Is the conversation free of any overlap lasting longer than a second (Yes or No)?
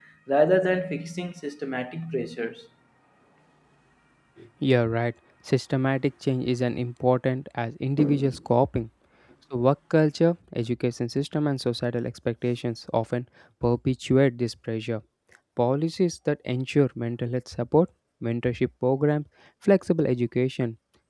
Yes